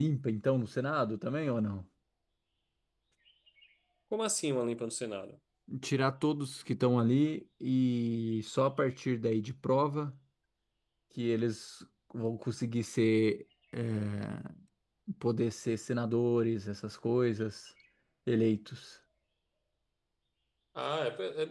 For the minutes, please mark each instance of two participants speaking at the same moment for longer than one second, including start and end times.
none

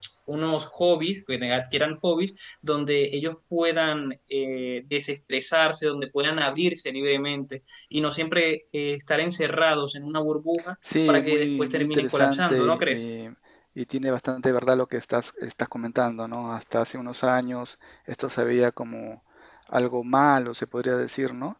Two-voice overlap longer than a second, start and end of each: 11.1-13.0

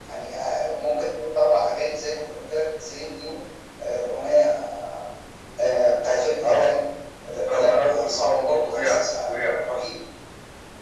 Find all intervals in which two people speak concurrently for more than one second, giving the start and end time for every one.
7.5-9.6

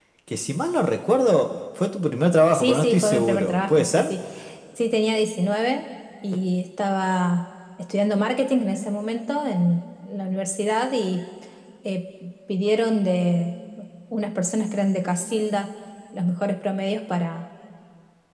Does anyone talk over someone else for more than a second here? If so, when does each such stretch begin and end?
2.5-4.1

